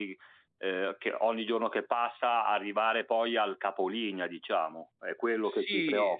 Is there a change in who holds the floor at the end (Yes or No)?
Yes